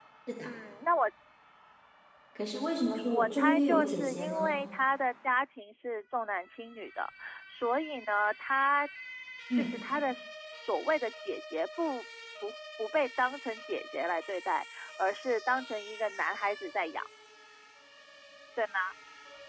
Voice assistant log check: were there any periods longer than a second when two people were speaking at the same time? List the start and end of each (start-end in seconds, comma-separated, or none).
3.1-4.6